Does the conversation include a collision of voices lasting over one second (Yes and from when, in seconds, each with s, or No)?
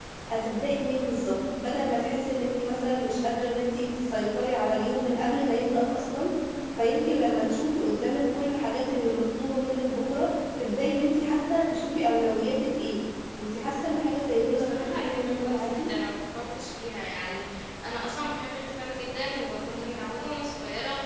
Yes, from 14.5 s